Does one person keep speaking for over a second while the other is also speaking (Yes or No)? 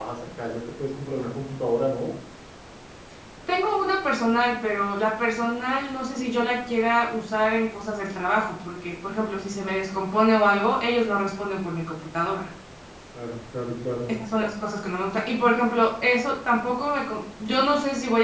No